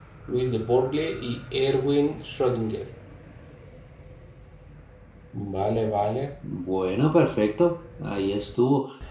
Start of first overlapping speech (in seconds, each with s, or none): none